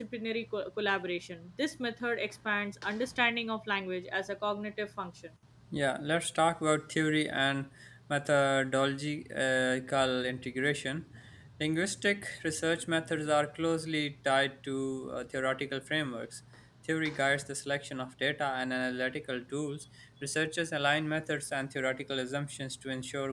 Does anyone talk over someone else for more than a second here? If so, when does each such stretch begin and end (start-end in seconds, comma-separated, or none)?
none